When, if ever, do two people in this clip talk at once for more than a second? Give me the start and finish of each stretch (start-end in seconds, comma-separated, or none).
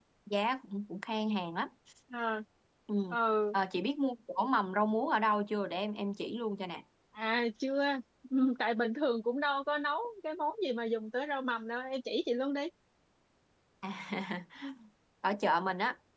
none